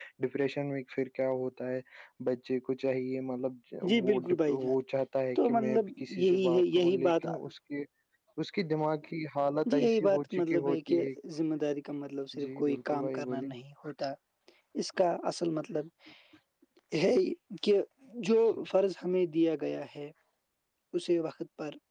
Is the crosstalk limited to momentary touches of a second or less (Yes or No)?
No